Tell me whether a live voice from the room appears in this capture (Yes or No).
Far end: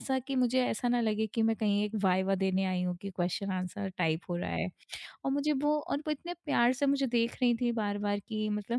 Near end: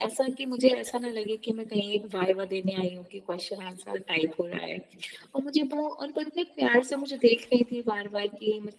No